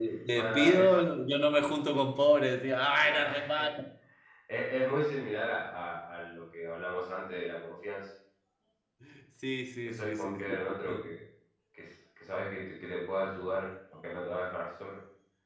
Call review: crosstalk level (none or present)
present